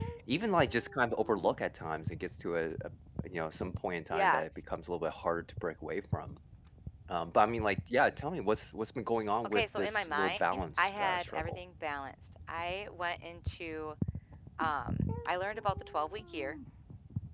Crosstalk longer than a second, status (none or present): present